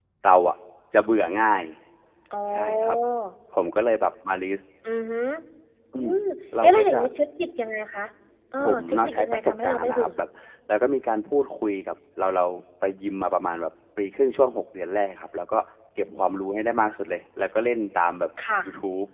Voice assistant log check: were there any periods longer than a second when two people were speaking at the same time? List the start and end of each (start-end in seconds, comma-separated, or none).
8.6-10.1